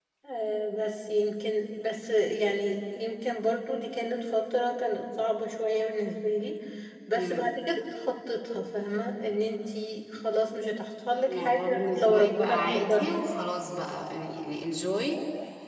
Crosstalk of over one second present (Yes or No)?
Yes